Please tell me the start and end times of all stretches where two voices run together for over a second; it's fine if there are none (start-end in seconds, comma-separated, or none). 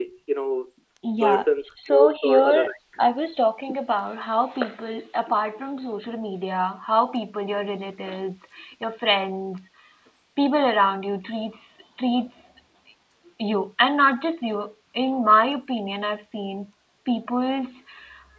1.2-2.6